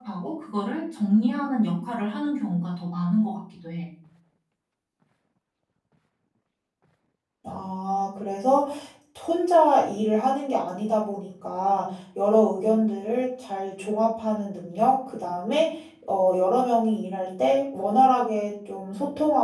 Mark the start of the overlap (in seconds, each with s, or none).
none